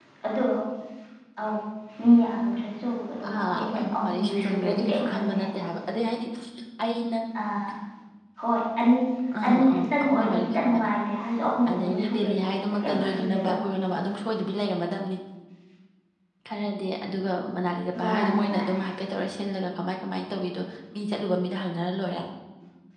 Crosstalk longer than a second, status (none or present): present